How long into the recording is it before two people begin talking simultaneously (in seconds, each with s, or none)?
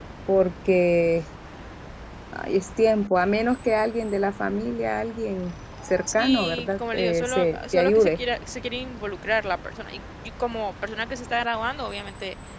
6.1 s